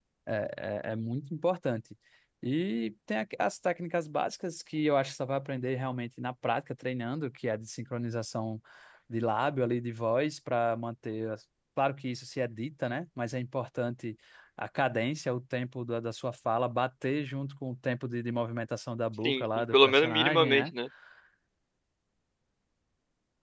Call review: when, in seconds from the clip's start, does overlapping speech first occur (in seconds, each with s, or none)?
19.2 s